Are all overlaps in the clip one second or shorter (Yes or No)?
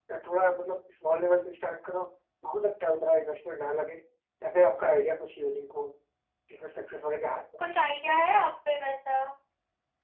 Yes